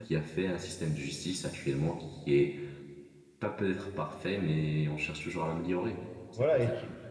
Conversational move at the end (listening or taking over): taking over